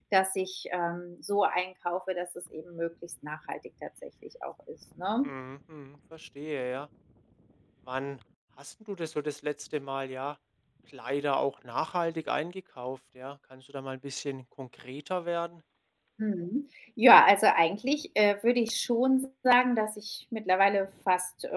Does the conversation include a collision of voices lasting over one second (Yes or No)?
No